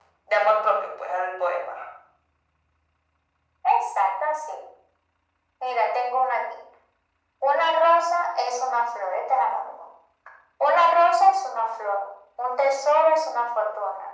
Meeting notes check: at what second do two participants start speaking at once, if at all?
none

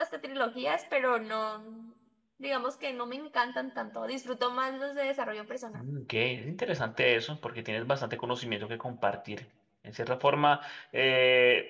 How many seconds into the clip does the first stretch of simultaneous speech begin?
none

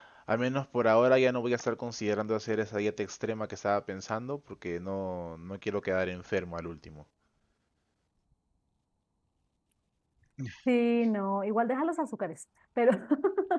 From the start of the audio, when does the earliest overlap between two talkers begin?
none

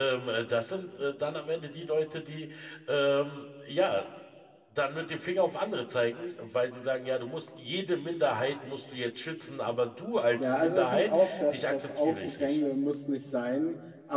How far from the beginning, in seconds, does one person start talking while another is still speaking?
10.4 s

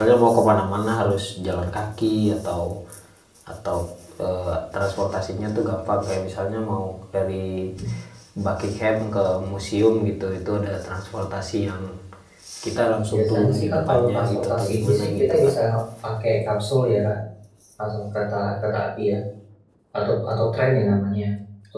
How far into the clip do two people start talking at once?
13.1 s

